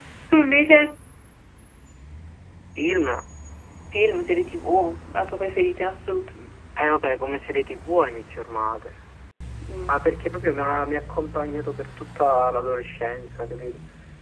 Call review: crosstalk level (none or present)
none